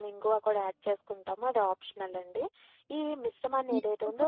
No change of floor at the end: No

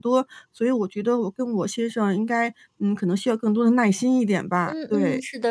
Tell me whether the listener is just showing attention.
No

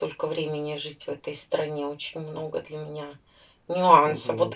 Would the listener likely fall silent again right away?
Yes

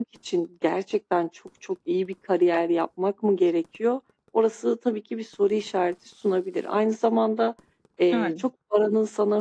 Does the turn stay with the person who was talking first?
Yes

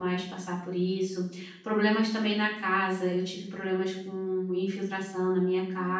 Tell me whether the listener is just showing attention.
Yes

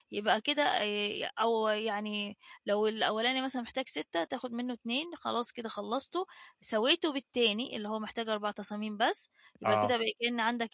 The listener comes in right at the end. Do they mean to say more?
No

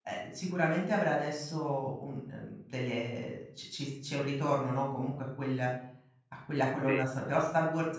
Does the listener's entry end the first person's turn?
No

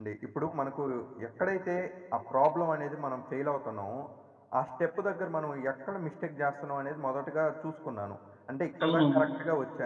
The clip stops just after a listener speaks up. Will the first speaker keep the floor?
Yes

